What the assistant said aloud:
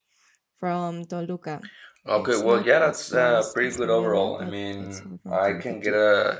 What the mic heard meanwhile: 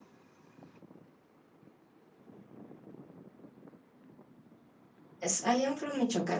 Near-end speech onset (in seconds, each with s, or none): 5.2 s